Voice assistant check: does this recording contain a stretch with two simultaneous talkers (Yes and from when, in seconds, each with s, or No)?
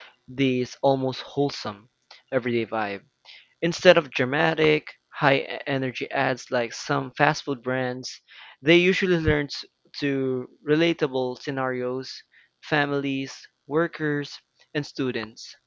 No